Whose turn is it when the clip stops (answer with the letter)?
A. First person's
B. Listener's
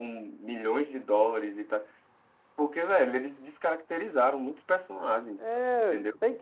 B